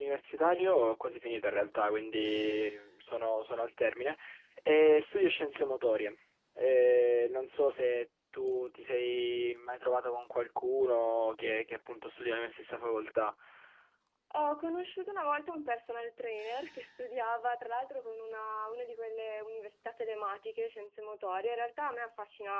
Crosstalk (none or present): none